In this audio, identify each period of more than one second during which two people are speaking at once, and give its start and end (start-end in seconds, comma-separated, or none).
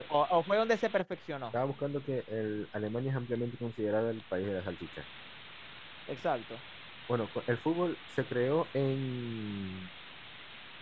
none